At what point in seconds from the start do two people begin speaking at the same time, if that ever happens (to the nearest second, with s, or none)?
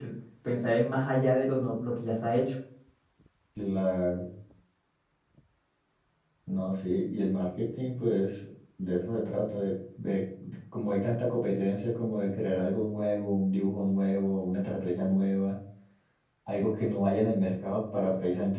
none